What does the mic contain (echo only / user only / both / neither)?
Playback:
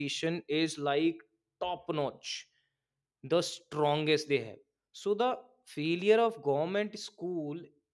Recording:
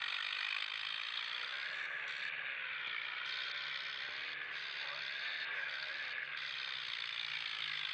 neither